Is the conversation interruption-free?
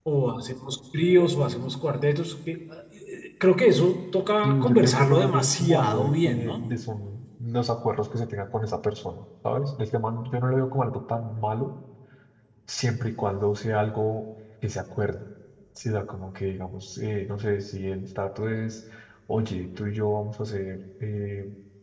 No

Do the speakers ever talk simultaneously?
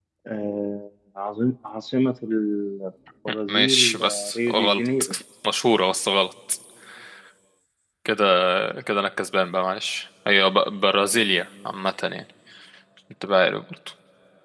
Yes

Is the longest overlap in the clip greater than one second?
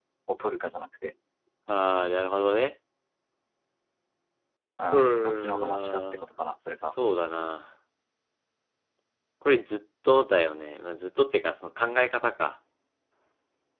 Yes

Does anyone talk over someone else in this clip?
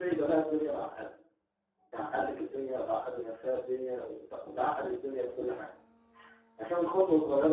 No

